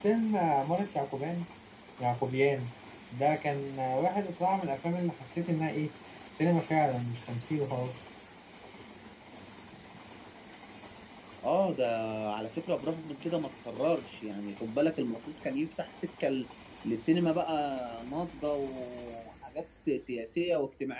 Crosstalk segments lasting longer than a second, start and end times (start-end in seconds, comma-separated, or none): none